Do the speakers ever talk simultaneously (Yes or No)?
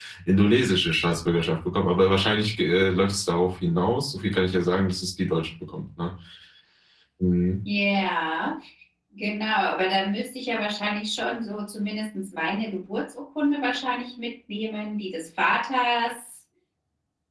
No